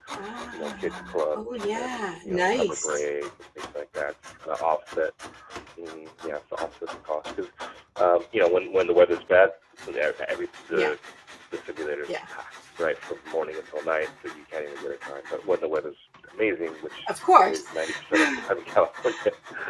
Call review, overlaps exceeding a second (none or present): present